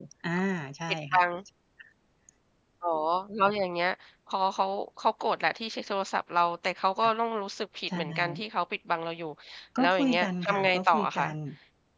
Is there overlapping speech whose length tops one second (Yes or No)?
Yes